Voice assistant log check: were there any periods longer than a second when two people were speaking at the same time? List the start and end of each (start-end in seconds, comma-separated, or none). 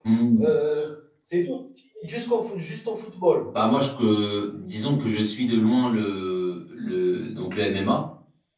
none